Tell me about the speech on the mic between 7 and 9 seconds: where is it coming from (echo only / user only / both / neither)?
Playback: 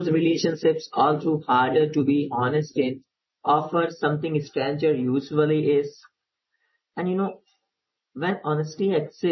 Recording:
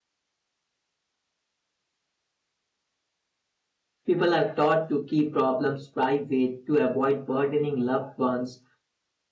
user only